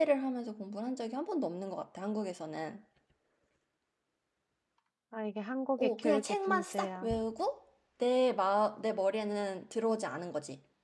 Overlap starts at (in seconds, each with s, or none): 5.8 s